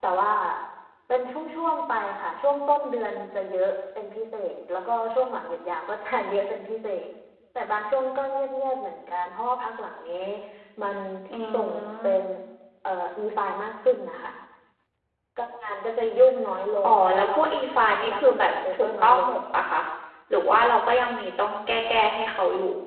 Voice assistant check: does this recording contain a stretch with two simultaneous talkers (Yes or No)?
Yes